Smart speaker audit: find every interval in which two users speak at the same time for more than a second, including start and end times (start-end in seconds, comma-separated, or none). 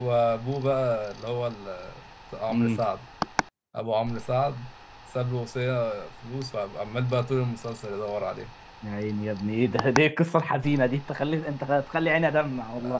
none